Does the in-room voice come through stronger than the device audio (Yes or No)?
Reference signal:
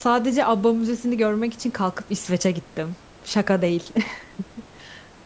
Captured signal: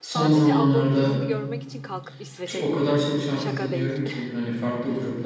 Yes